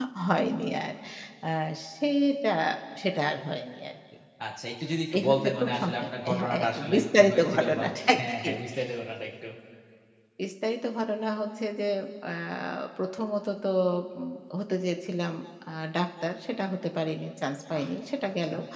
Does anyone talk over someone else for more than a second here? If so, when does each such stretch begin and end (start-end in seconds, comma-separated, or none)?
5.2-8.5